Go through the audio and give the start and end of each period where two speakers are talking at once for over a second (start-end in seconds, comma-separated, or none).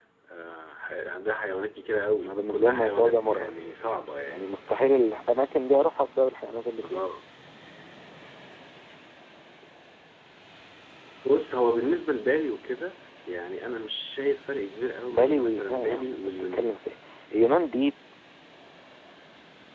2.2-3.5, 15.1-16.8